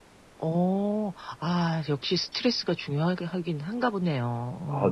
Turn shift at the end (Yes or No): Yes